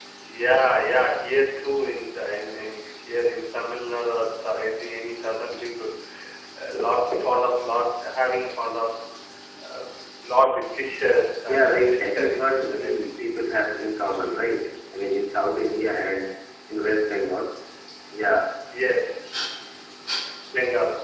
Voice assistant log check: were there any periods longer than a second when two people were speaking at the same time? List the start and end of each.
11.5-13.3

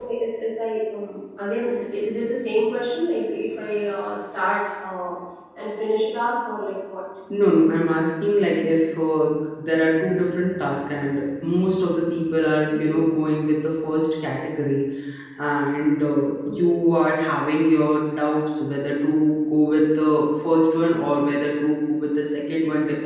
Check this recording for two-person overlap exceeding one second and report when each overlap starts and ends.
none

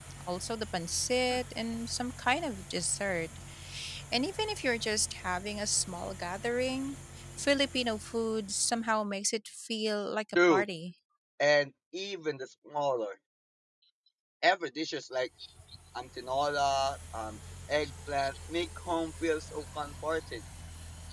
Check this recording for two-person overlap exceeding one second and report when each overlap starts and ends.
none

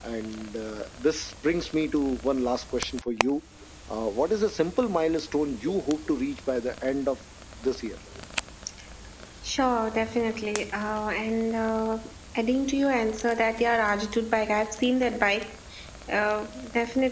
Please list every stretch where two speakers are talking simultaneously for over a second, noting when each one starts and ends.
none

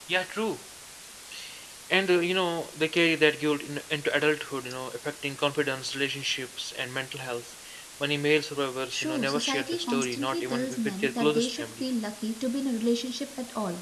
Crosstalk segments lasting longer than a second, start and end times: 8.9-11.7

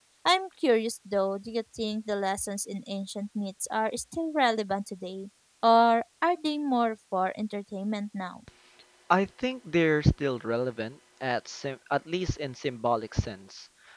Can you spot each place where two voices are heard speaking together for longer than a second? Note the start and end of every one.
none

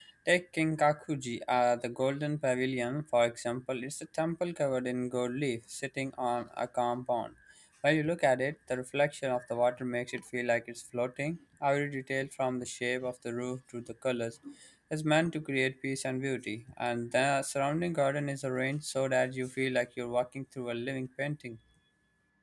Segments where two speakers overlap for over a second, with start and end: none

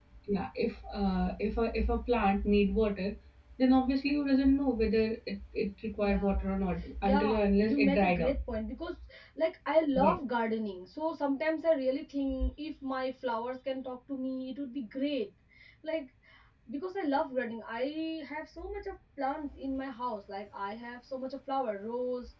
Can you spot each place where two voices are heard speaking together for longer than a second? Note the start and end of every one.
7.0-8.3

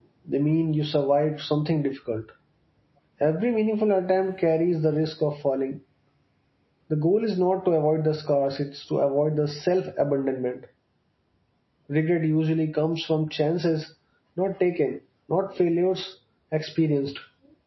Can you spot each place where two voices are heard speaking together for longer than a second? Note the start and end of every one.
none

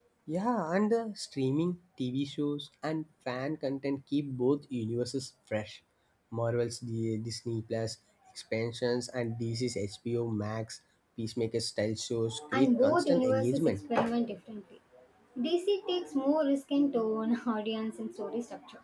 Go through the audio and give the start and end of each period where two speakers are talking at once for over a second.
12.5-13.8

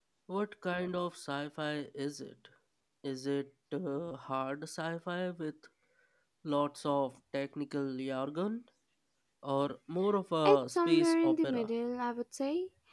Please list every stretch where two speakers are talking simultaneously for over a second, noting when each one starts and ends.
10.4-11.7

